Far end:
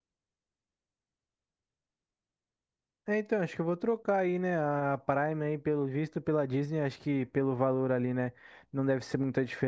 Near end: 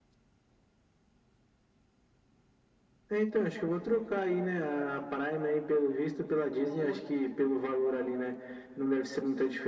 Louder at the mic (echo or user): echo